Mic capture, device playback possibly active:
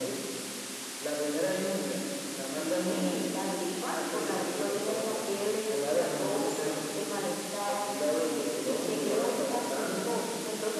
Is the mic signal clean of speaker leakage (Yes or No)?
No